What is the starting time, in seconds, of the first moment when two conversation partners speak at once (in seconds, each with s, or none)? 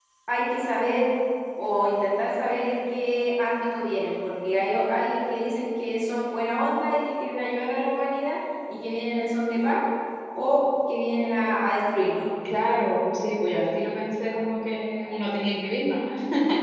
none